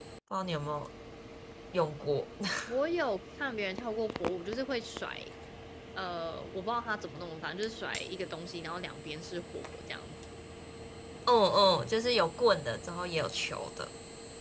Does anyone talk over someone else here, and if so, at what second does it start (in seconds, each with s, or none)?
none